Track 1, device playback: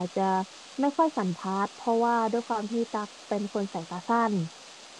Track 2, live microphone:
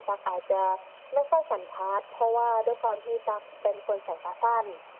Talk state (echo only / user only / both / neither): echo only